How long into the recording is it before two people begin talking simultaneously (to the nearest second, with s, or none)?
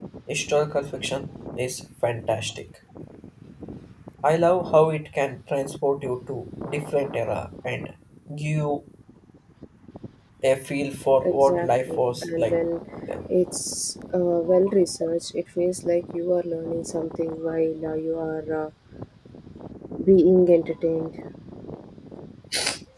11 s